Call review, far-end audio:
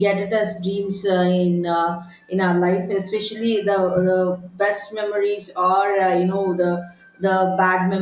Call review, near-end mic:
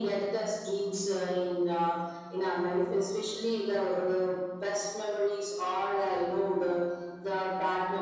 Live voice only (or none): none